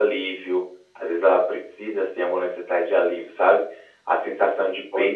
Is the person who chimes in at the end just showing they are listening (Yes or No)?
Yes